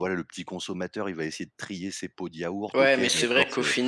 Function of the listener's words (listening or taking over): taking over